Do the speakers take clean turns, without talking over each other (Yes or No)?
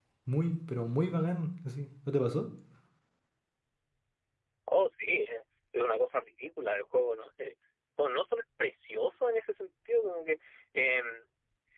Yes